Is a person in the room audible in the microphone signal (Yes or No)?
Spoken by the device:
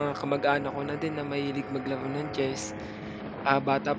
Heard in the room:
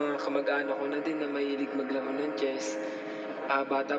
No